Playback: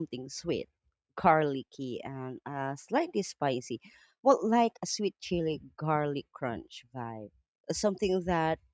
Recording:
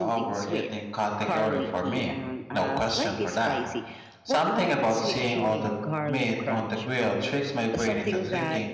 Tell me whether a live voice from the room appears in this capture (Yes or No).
Yes